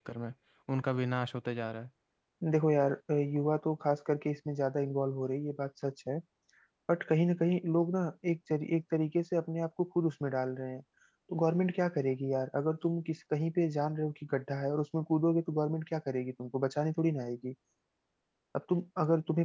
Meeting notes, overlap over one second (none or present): none